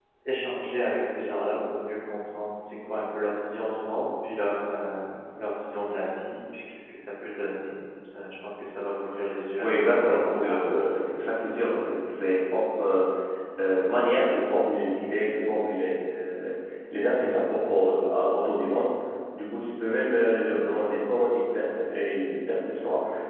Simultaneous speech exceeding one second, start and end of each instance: 9.6-11.2

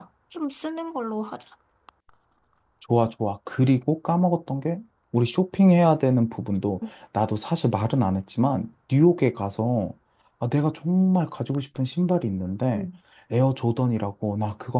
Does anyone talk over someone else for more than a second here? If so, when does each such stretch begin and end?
none

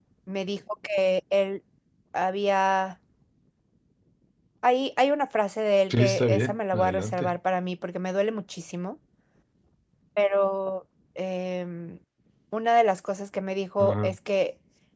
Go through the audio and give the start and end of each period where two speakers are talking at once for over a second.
5.9-7.3

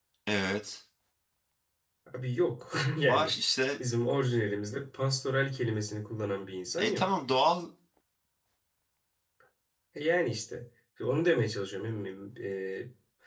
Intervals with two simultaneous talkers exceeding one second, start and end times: none

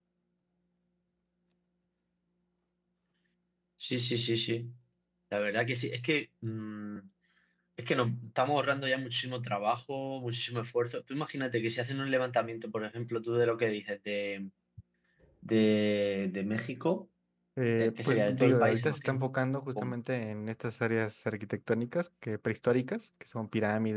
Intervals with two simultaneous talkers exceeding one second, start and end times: 17.8-19.2

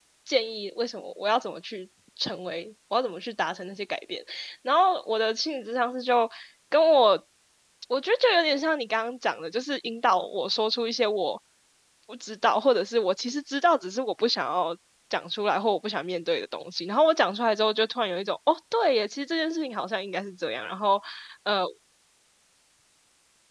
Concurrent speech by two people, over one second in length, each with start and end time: none

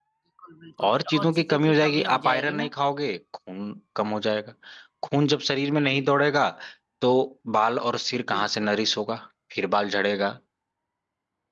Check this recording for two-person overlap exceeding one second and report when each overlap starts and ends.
0.8-2.7

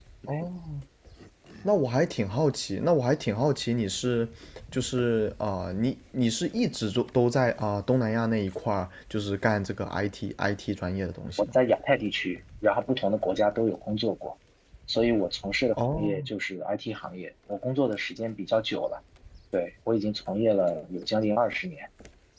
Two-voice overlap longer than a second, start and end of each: none

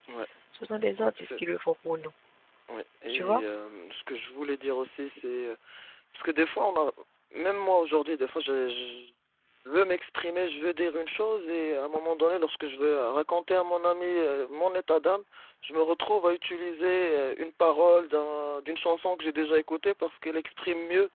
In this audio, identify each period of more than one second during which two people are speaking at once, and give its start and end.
none

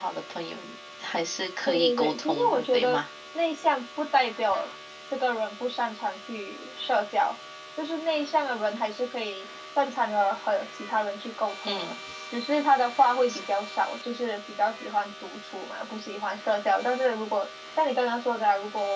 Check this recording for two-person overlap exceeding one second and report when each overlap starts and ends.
1.6-3.0

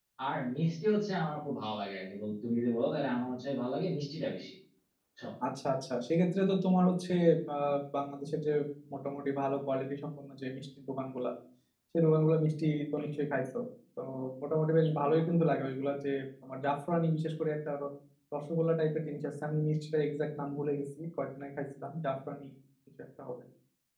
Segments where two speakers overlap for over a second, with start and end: none

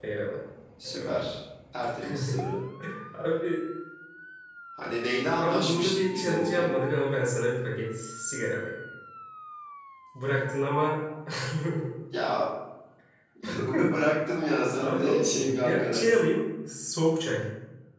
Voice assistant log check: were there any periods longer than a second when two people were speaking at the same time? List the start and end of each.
5.4-6.7, 14.8-16.2

